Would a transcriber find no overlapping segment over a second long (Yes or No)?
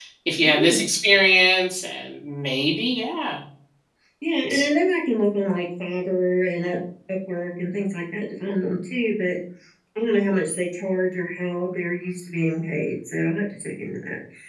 Yes